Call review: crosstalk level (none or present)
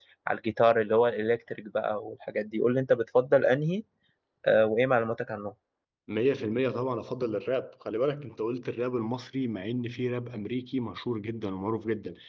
none